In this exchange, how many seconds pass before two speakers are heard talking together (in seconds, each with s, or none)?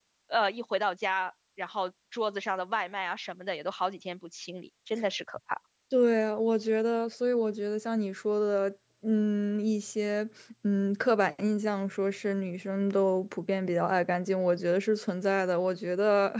none